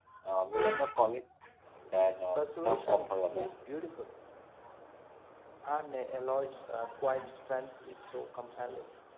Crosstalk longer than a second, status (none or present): present